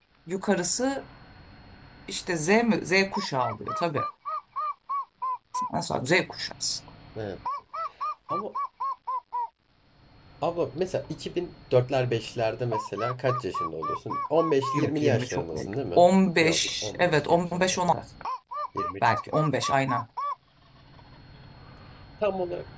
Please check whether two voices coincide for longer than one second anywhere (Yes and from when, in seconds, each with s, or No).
Yes, from 14.8 s